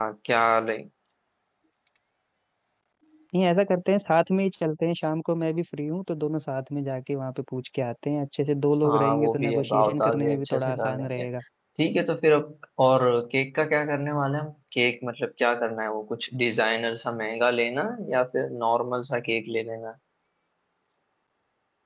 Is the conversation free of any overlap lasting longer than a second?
No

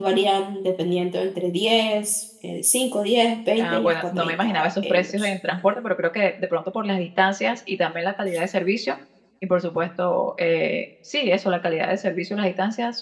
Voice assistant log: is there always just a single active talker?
No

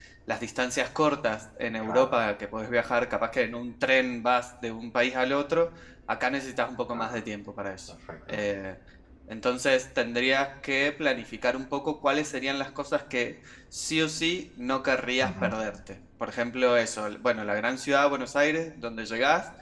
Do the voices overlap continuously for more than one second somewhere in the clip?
No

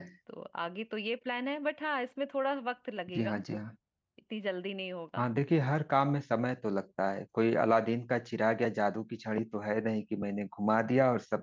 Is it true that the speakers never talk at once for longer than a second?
Yes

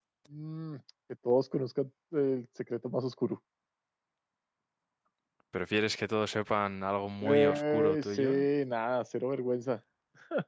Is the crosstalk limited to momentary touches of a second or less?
No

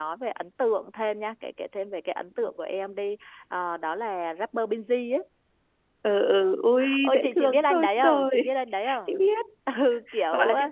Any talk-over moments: Yes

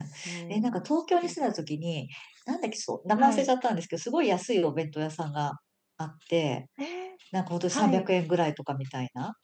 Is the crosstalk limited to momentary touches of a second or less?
Yes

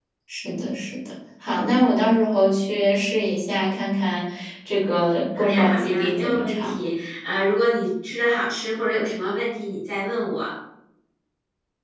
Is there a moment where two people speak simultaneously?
Yes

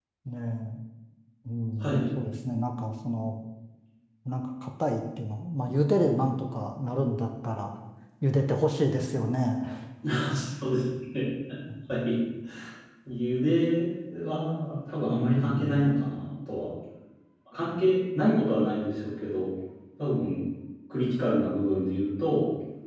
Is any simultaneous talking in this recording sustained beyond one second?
Yes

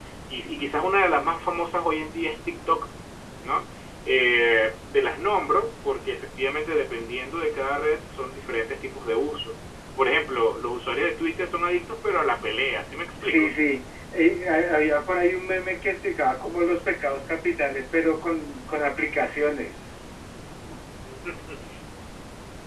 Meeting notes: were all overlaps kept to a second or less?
Yes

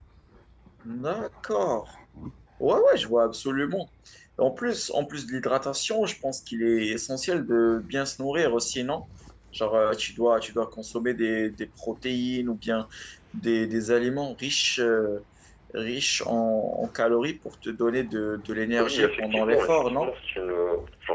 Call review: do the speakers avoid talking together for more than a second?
No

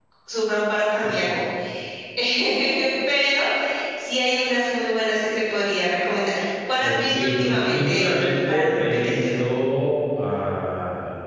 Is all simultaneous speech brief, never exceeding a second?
No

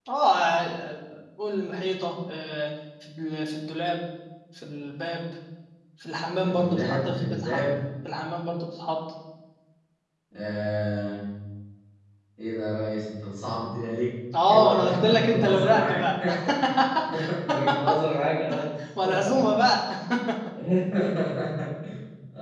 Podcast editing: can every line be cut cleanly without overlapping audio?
No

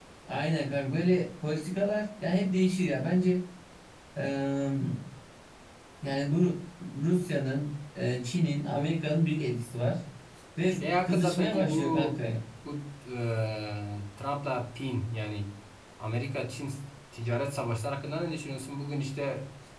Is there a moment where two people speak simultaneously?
Yes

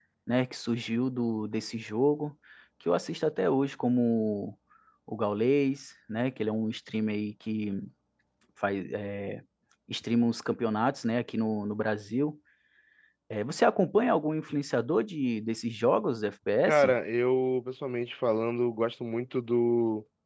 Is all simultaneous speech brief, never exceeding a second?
Yes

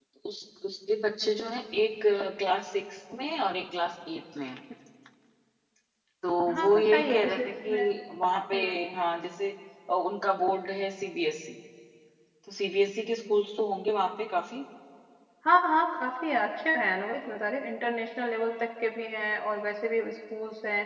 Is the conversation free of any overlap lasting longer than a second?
No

